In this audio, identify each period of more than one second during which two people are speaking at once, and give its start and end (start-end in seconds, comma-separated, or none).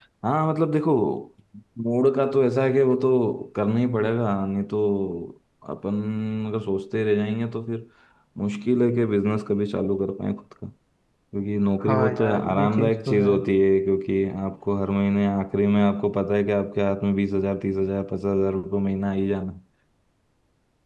11.8-13.4